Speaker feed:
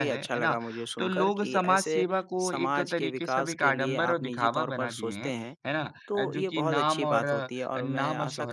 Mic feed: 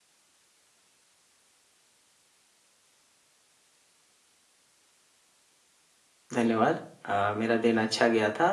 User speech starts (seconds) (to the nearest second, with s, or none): 6 s